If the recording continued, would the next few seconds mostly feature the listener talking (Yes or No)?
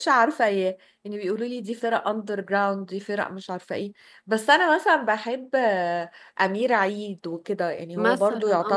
No